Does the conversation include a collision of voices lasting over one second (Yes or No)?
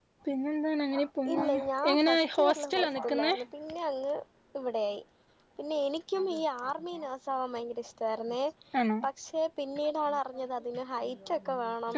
Yes